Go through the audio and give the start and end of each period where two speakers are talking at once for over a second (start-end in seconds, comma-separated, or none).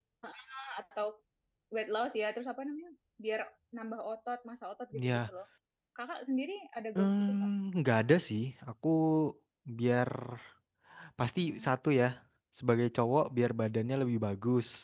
none